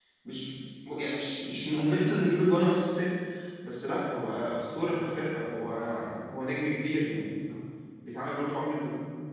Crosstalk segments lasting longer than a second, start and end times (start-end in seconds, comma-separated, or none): none